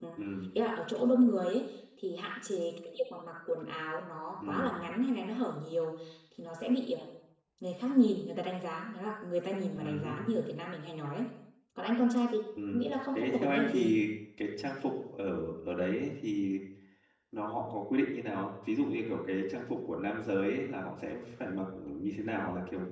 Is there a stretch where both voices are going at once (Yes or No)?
Yes